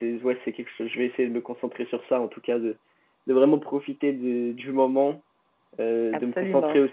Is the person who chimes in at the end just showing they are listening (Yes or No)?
Yes